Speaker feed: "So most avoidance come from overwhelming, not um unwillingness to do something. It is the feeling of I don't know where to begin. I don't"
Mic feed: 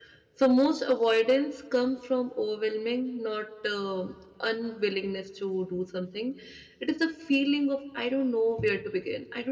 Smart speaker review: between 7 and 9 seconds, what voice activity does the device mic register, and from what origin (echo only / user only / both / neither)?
echo only